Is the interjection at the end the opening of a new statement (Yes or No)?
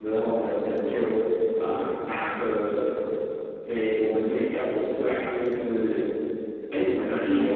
Yes